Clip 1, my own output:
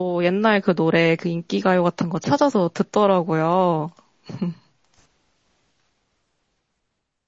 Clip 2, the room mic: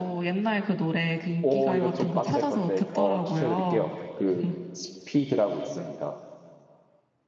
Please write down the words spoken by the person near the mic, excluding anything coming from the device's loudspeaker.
오, 이거 좀 빡셀 건데, 어, 추천해 드릴게요. 그, 스피드라고 있습니다.

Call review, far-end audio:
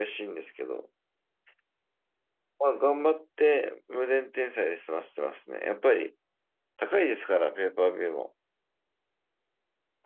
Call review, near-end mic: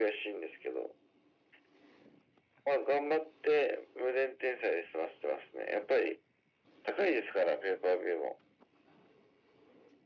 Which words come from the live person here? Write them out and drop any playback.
none

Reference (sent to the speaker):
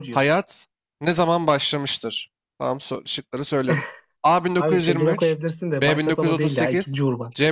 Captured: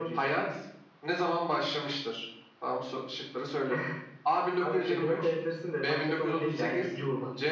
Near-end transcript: none

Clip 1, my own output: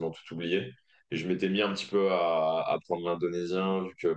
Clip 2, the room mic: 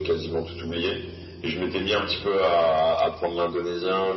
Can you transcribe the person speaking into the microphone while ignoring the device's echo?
none

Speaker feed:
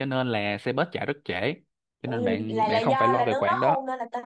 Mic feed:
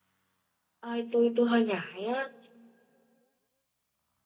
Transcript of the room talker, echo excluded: ơi tôi tôi hơi ngại á

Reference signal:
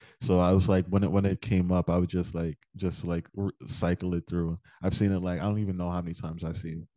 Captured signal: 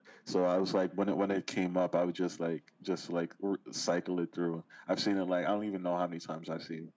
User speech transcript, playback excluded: none

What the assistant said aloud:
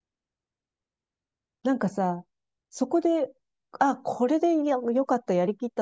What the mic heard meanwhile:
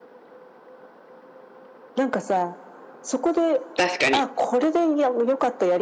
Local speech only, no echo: 確かに。

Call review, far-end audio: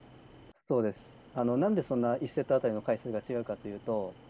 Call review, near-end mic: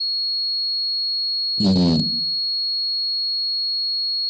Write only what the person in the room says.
うん。

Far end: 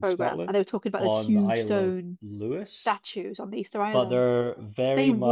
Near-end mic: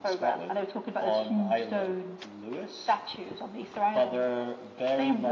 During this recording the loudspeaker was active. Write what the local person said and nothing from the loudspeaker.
none

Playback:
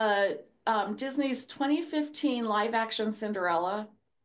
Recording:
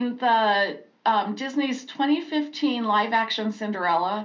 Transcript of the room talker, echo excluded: none

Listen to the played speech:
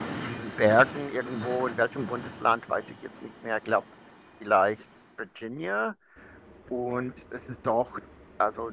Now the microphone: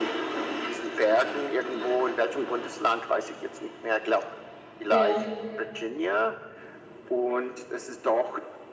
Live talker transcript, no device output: Ja,

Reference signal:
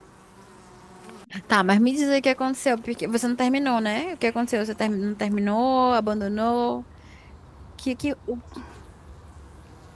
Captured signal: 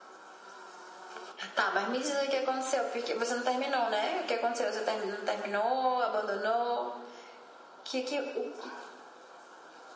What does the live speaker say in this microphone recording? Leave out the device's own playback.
none

